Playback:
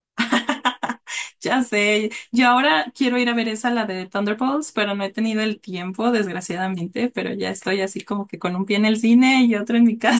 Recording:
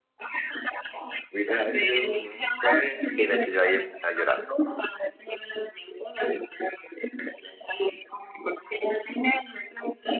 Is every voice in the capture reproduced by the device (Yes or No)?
No